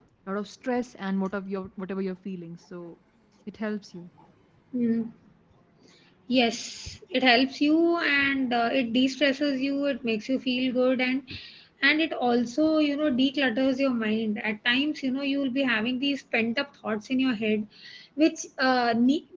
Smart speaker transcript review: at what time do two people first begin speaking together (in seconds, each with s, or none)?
none